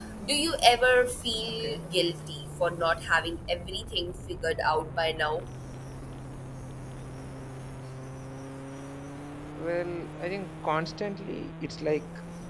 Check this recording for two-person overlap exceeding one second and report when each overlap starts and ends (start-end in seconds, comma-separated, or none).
none